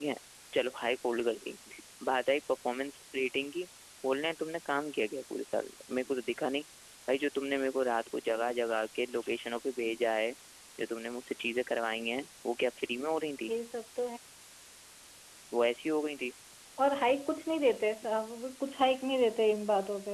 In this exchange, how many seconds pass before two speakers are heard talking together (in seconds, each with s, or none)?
none